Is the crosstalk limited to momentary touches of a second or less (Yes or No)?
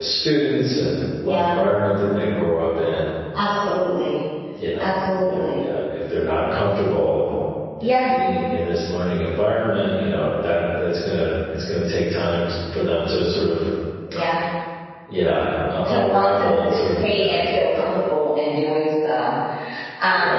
No